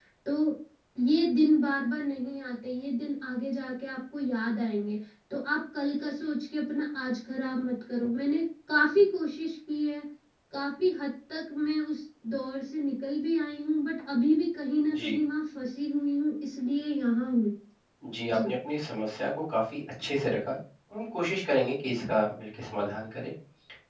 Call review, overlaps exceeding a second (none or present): none